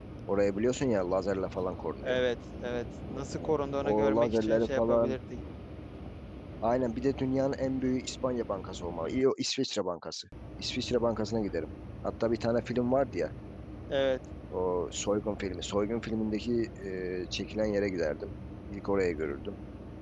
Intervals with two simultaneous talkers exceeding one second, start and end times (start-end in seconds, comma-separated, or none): 3.4-5.2